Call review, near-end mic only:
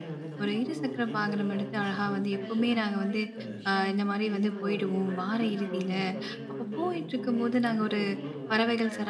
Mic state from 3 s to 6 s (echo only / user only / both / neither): both